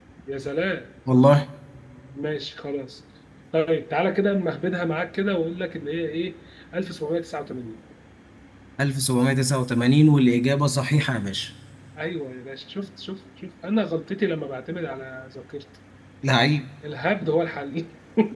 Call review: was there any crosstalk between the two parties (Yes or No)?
No